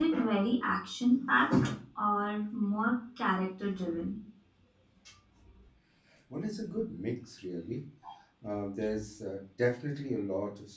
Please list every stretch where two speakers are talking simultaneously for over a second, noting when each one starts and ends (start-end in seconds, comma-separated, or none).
none